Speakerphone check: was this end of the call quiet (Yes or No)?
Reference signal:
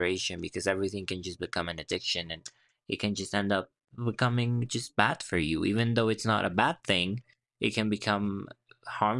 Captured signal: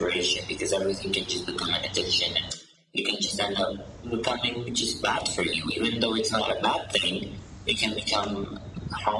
Yes